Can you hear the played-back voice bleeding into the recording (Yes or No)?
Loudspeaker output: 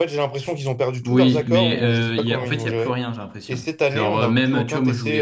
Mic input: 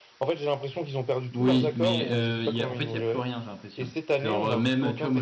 Yes